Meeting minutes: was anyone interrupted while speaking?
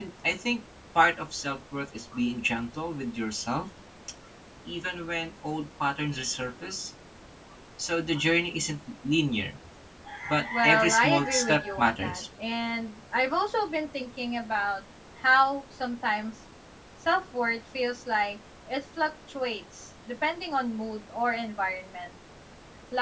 Yes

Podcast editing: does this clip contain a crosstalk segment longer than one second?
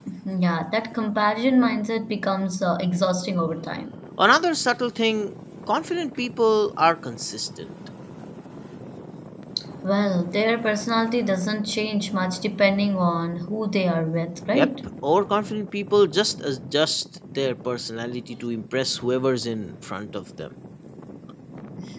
No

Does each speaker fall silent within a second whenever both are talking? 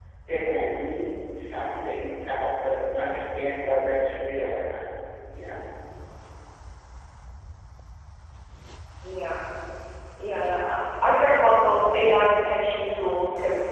Yes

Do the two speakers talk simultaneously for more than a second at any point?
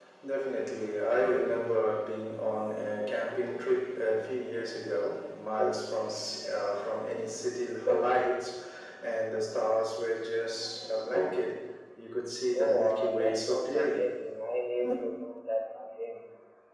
Yes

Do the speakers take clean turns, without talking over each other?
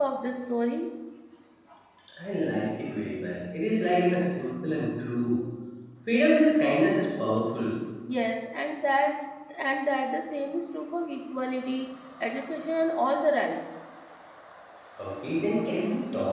Yes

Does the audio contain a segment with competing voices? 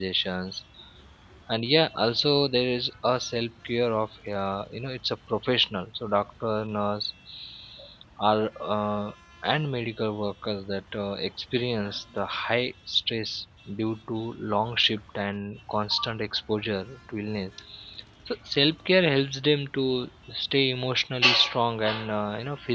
No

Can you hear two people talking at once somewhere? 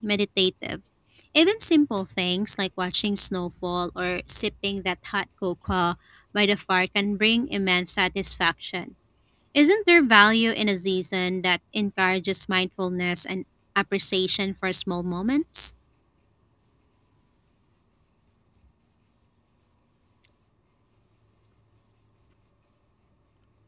No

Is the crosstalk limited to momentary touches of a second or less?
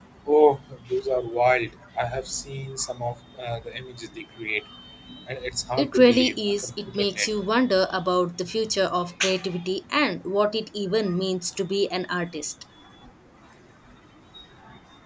No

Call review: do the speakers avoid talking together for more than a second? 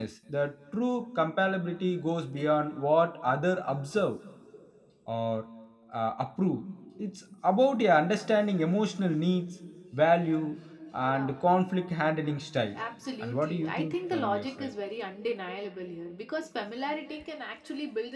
No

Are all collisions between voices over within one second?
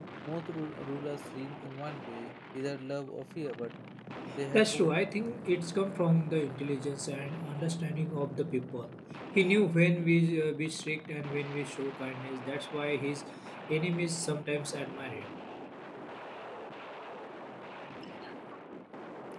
Yes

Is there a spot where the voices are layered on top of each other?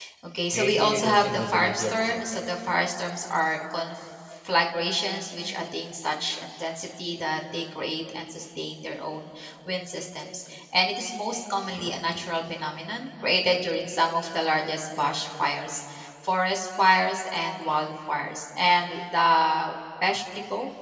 Yes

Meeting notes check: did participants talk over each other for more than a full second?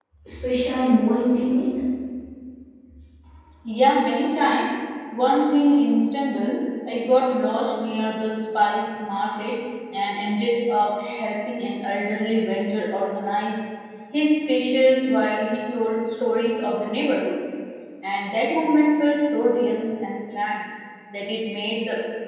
No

